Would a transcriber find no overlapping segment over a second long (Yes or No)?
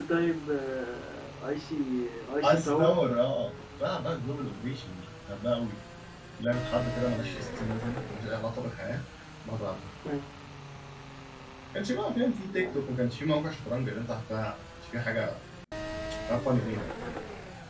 Yes